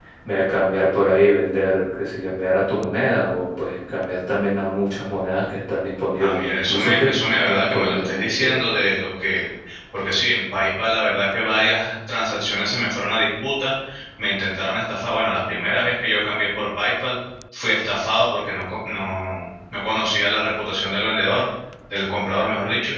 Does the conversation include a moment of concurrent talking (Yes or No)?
Yes